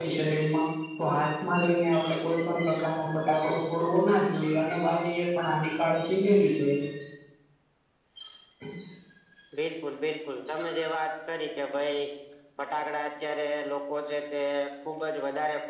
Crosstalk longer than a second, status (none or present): none